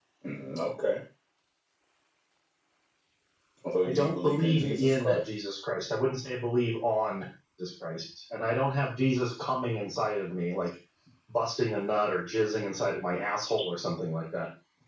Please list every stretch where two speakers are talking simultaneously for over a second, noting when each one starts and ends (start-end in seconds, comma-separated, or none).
3.9-5.2